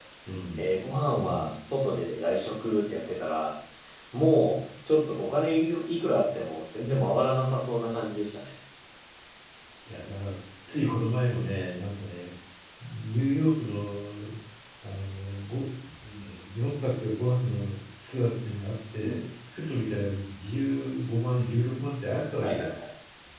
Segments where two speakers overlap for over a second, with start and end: none

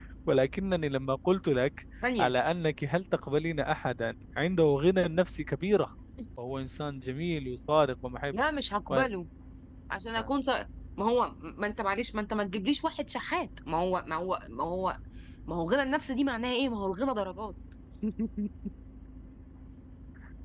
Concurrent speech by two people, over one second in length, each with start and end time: none

